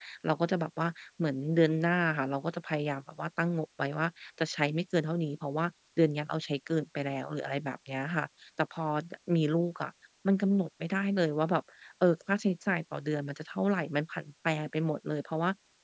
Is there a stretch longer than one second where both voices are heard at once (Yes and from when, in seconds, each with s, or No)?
No